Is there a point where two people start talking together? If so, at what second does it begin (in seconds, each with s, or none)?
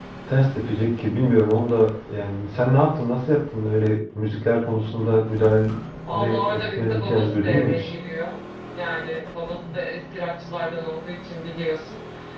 6.0 s